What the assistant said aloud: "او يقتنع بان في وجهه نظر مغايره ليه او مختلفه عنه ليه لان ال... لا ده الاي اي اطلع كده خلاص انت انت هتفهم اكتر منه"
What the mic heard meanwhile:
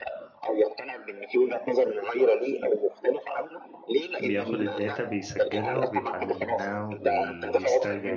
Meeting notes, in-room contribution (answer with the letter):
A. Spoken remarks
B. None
A